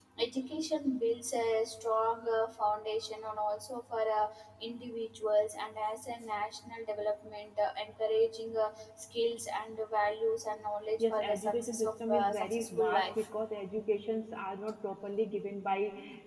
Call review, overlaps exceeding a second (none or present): present